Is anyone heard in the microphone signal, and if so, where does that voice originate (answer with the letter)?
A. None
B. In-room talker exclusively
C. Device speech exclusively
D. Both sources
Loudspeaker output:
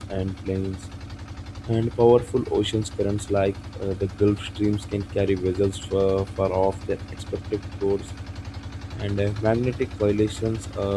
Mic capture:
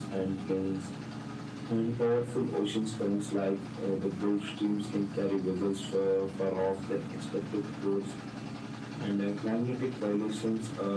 C